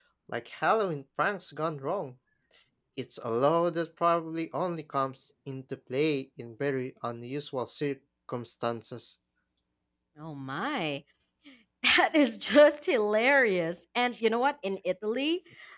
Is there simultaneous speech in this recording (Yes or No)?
No